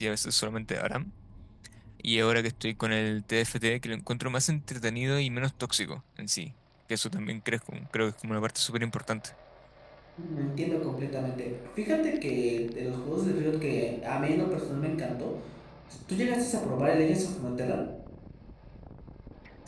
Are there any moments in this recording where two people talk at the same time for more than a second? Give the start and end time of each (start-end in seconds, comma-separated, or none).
none